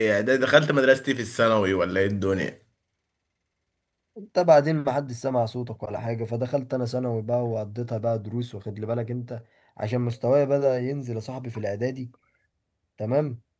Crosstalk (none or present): none